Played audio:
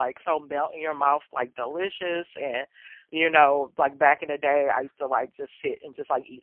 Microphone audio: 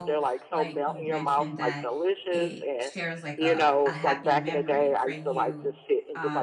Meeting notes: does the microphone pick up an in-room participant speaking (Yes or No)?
Yes